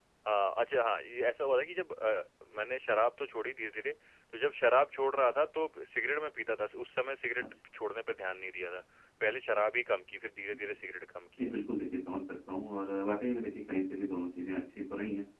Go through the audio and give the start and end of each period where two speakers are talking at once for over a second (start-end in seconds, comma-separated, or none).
none